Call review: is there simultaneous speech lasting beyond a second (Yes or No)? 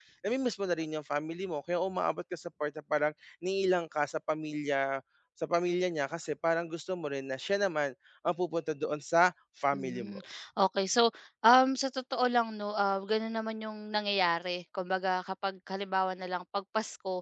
No